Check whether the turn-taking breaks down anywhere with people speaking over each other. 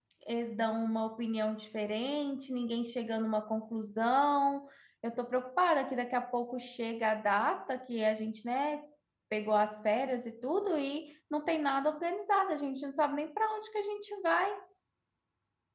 No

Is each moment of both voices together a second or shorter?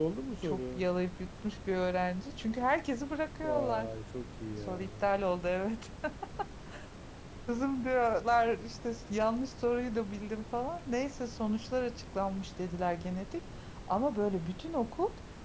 Yes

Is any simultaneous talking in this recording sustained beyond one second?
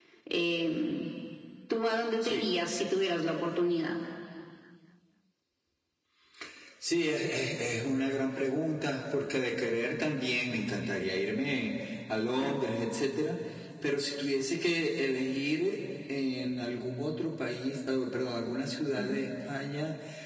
No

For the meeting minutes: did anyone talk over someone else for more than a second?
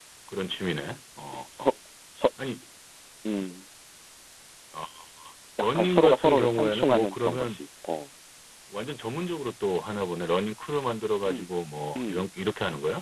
Yes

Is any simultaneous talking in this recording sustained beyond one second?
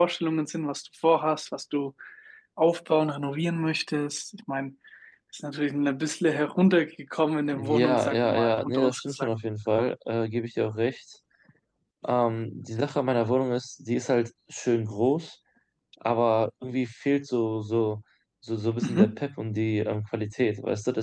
Yes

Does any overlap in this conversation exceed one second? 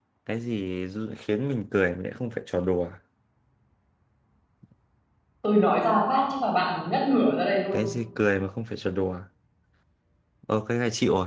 No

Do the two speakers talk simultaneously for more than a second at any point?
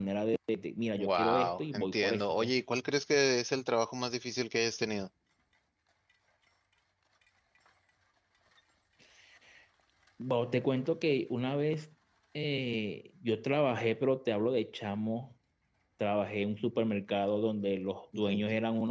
Yes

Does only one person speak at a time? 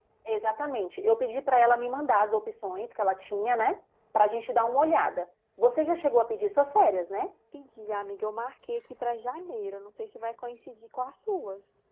Yes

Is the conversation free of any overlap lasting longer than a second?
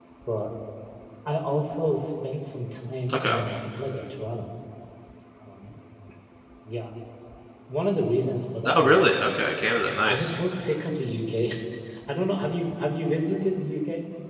Yes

